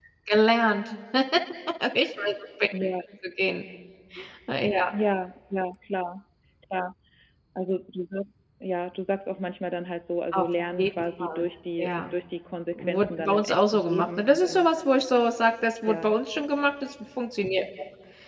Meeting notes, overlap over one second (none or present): present